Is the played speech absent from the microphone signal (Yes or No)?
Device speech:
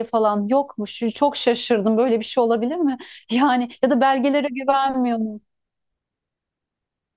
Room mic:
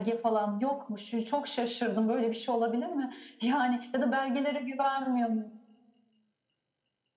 No